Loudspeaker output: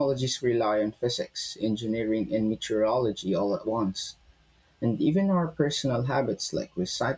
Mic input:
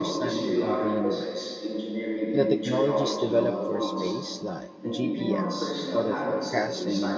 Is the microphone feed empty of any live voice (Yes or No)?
No